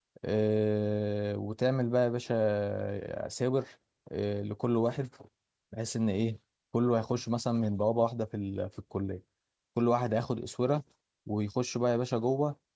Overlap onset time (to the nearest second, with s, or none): none